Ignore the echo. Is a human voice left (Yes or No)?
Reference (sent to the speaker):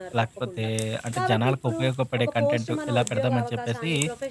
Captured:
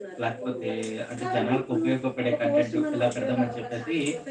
Yes